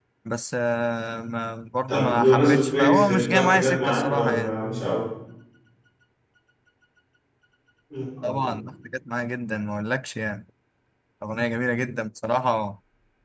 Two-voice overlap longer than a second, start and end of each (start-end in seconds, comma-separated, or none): 1.9-4.5